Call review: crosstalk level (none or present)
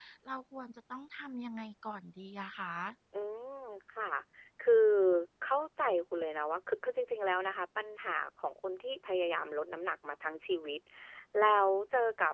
none